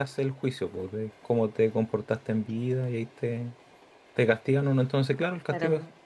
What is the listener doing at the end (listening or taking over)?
listening